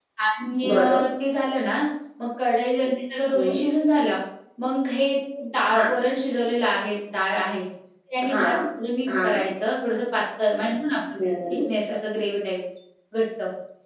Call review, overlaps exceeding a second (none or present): none